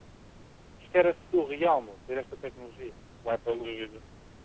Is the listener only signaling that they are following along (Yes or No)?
No